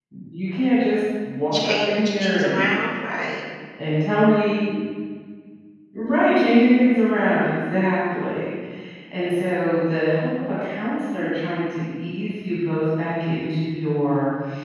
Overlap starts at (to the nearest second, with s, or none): 2 s